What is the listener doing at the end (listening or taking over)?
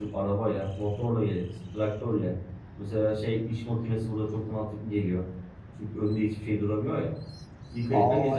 taking over